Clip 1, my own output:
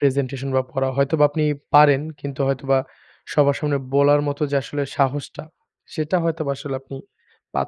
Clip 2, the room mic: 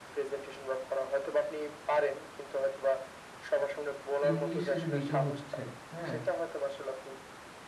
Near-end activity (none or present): present